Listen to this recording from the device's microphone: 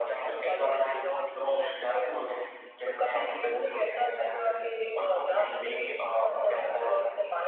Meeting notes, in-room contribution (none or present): none